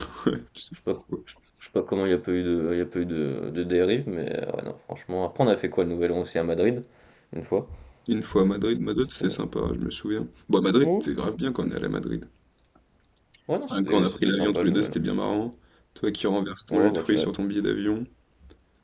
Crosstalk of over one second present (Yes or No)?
Yes